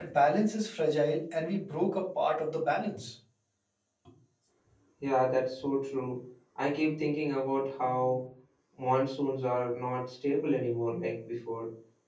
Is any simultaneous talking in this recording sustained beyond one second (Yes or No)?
No